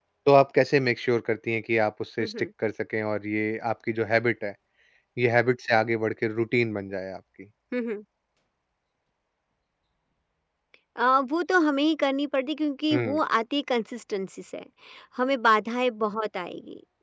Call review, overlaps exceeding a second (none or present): none